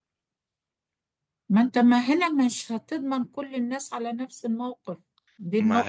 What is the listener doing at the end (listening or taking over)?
taking over